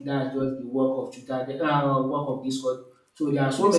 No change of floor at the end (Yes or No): Yes